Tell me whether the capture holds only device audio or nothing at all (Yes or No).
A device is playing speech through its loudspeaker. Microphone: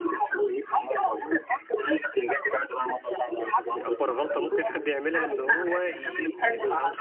No